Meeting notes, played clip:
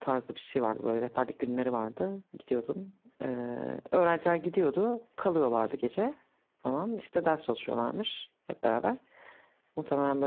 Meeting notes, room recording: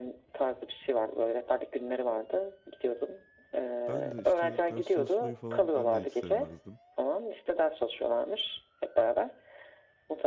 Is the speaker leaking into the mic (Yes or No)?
Yes